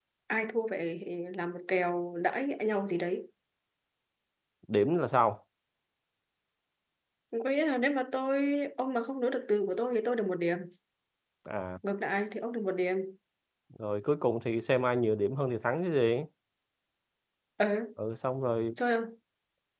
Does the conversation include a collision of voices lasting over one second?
No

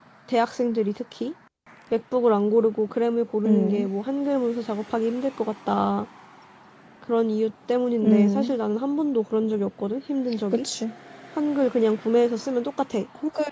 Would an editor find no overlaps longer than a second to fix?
Yes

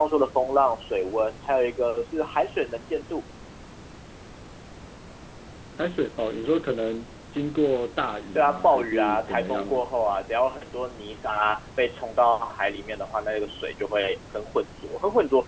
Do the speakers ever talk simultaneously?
Yes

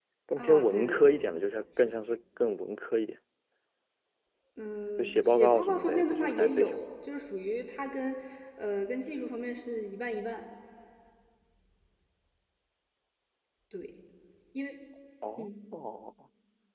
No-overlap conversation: No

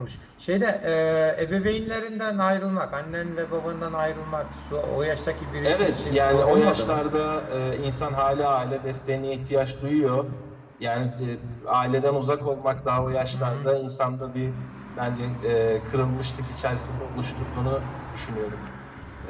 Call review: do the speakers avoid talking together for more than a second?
No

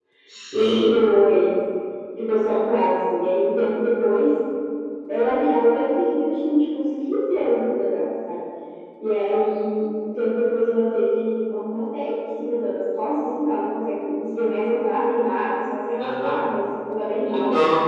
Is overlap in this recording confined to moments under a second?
Yes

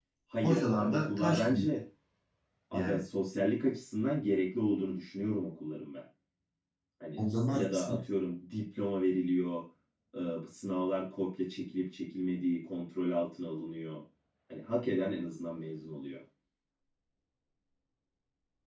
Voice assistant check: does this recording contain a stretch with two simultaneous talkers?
Yes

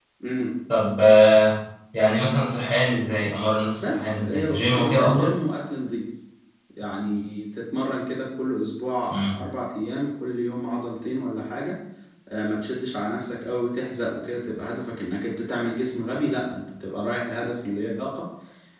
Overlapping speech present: Yes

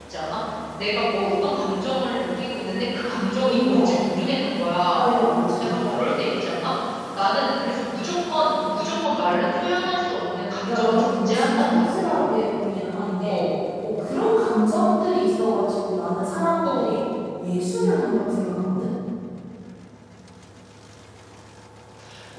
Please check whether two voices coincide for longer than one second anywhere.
Yes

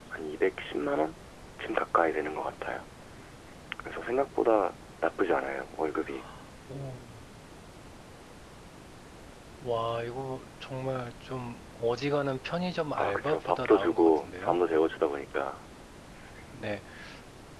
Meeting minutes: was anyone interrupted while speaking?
Yes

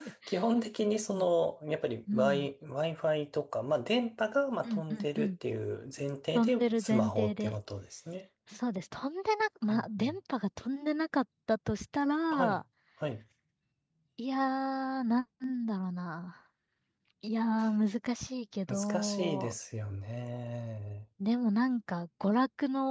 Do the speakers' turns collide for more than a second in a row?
Yes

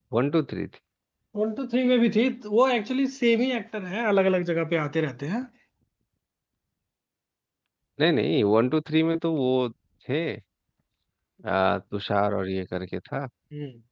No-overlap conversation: Yes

